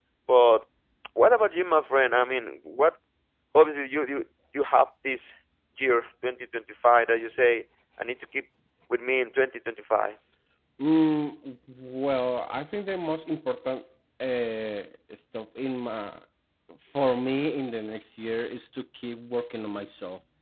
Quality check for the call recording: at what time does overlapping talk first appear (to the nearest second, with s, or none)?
none